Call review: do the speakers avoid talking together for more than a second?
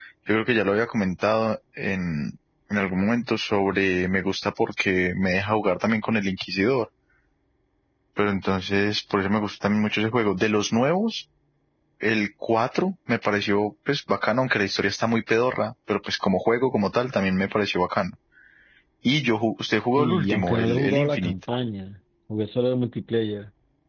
No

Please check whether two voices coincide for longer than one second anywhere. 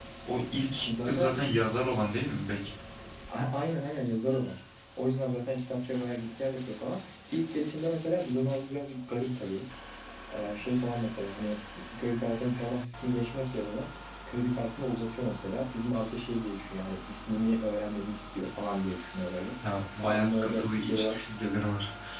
Yes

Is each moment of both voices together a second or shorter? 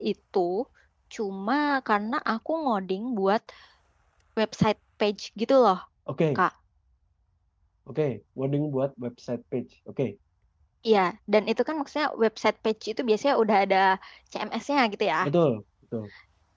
Yes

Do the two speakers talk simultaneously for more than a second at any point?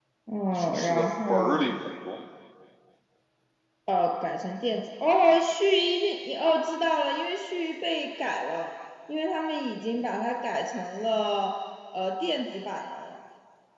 Yes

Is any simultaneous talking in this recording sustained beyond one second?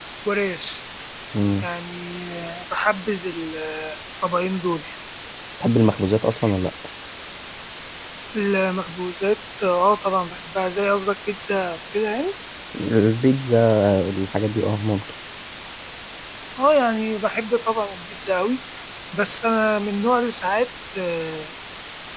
No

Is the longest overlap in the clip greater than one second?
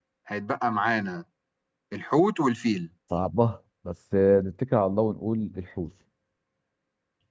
No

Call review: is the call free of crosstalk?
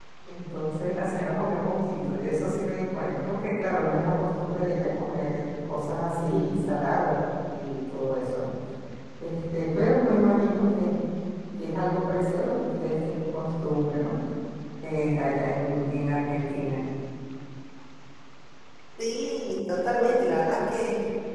Yes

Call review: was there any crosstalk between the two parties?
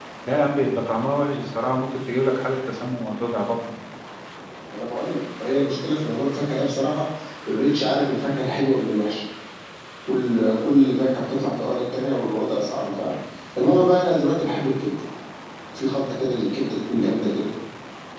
No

